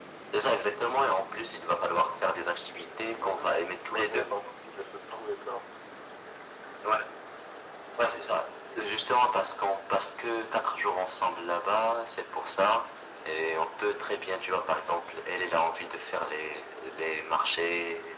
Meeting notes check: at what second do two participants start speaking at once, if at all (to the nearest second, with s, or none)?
3 s